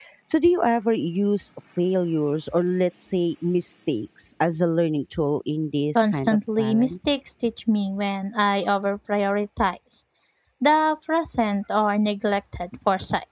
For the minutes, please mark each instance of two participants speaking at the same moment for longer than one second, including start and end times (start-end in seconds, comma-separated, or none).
6.0-7.2